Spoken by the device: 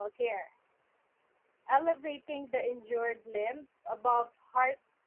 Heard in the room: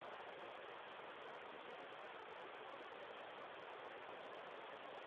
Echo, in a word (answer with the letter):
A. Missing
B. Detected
A